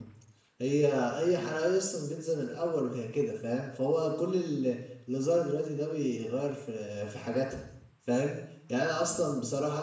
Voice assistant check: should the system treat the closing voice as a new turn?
No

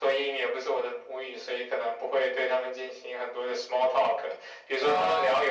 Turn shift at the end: No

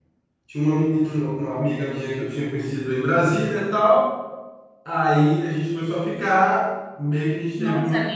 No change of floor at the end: Yes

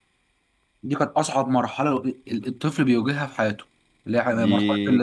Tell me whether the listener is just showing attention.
No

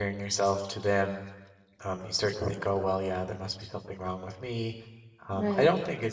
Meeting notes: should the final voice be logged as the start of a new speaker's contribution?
No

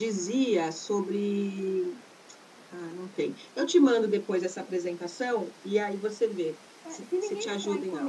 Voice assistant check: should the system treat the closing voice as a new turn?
Yes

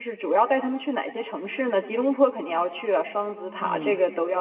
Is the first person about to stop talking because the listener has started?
No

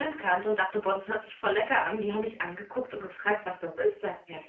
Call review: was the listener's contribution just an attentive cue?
No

